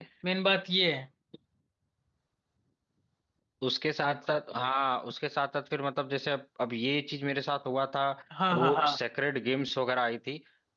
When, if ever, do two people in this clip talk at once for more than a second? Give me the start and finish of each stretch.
none

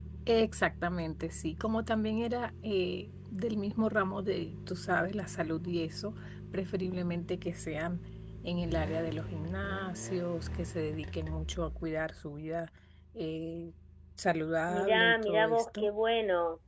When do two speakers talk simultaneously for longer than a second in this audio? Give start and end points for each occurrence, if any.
14.7-15.9

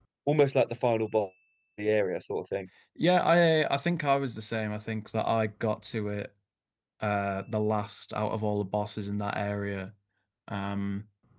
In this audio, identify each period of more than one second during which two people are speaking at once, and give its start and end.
none

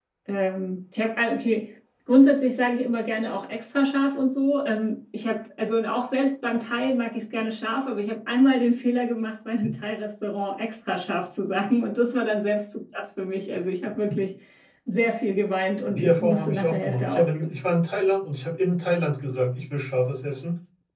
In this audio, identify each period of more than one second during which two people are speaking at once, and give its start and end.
15.9-17.5

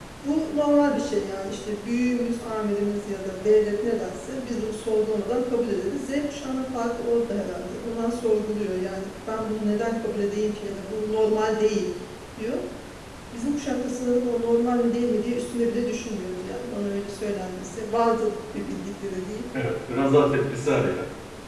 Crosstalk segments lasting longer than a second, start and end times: none

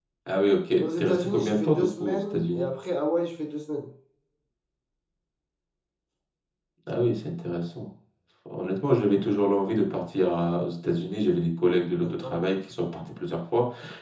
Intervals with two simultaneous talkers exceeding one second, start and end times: 0.8-2.7

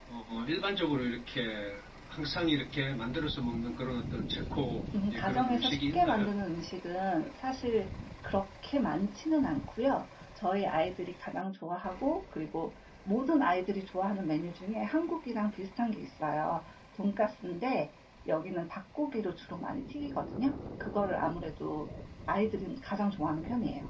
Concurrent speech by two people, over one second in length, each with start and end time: 5.1-6.3

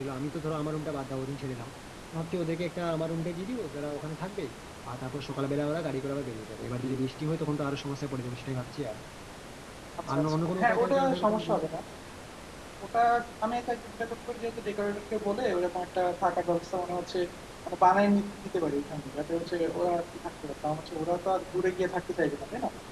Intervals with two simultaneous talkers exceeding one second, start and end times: 10.1-11.4

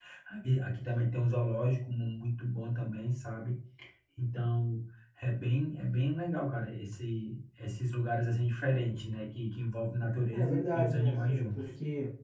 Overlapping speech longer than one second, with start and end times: 10.3-11.6

